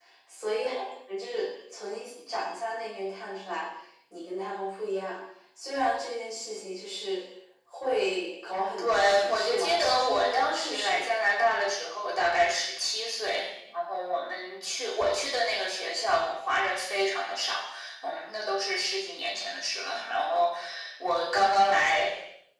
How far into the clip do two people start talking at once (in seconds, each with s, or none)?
8.8 s